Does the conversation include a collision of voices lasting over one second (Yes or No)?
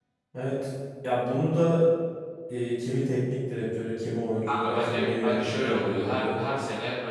Yes